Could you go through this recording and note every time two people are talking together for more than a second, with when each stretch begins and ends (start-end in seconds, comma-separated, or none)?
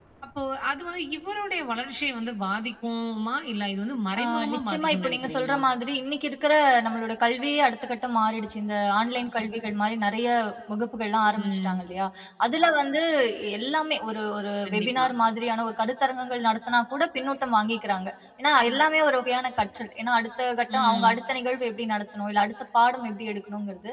4.2-5.6